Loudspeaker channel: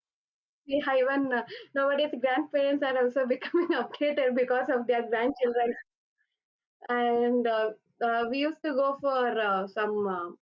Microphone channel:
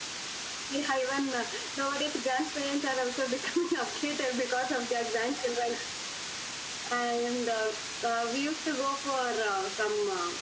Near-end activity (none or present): none